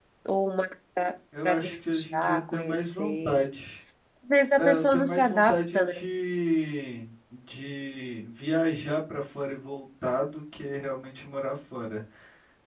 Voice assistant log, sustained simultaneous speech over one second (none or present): present